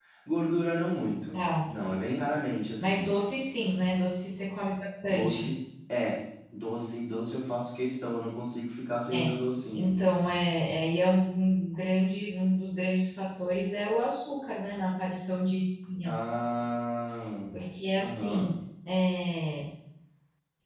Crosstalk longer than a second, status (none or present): none